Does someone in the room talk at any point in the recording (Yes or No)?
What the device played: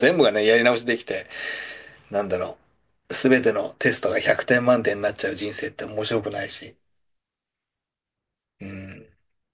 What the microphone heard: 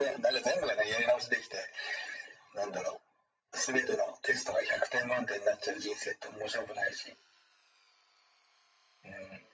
No